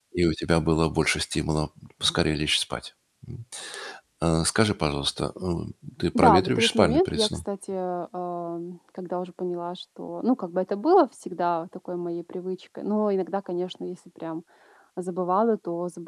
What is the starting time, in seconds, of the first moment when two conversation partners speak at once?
6 s

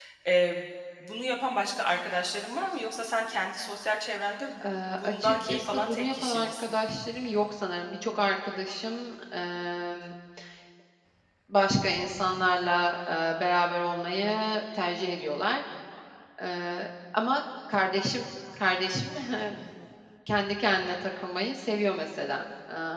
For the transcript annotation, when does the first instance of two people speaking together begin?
5 s

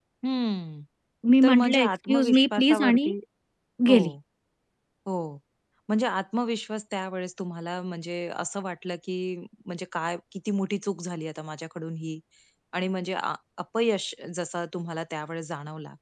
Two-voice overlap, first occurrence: 1 s

